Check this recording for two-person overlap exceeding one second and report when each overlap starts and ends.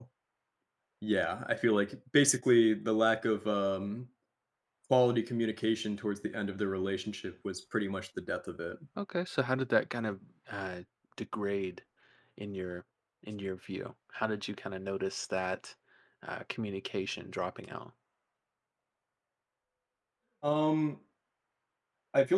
none

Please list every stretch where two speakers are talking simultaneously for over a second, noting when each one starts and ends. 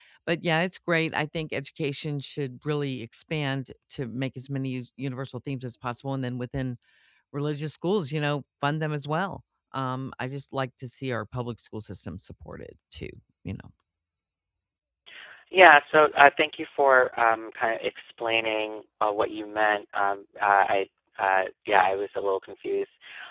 none

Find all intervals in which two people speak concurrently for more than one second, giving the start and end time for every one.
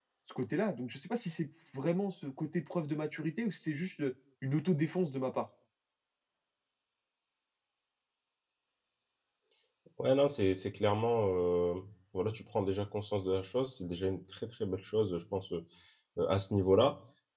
none

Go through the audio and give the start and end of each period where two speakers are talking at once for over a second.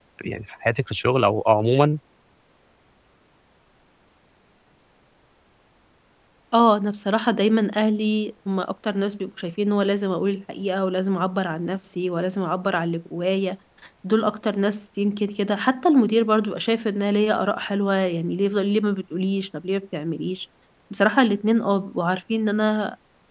none

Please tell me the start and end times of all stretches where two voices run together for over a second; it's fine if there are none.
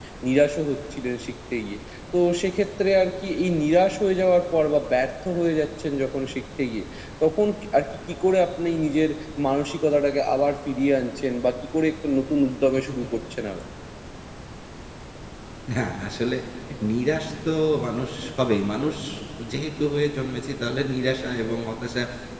none

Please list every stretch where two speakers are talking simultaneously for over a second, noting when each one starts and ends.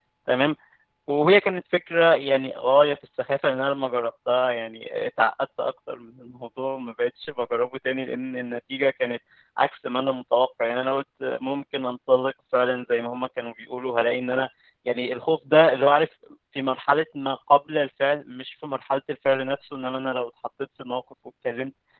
none

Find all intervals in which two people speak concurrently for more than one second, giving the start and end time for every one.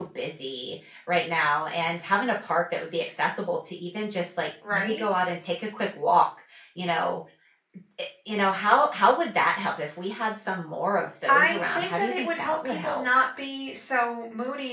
11.3-13.1

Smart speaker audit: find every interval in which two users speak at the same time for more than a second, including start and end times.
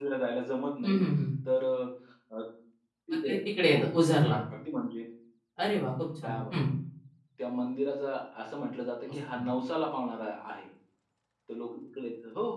3.1-4.4

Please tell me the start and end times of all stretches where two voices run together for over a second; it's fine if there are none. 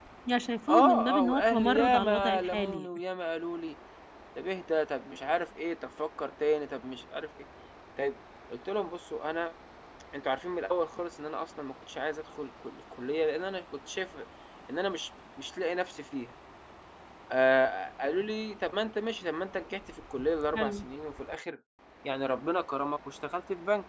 0.7-2.9

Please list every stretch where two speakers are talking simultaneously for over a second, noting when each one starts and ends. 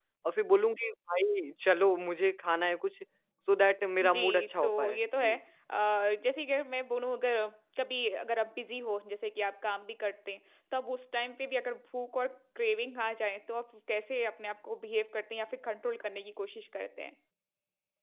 4.0-5.4

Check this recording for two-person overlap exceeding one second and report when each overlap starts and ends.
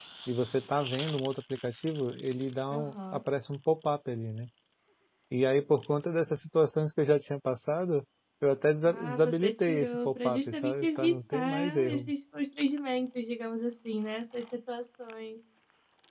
8.8-12.1

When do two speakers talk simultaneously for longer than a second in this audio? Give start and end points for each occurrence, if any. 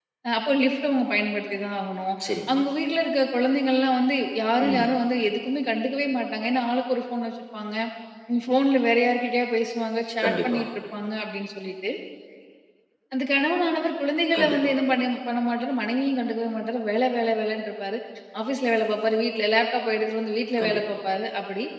none

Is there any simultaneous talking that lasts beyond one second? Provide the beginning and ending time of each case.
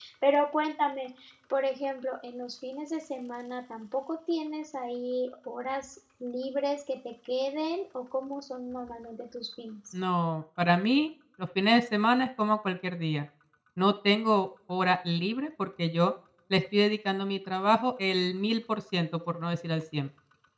none

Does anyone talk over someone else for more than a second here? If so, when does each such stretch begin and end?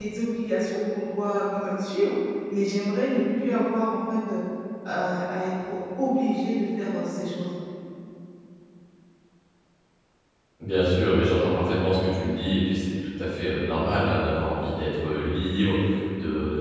none

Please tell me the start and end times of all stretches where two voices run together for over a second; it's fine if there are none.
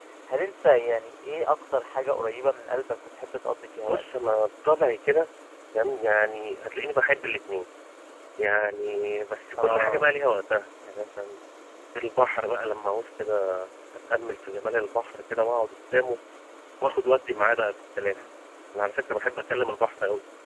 none

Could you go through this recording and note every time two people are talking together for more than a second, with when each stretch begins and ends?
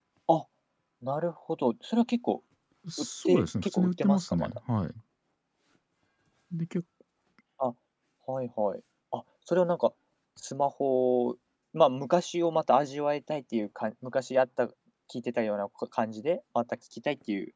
3.0-4.6

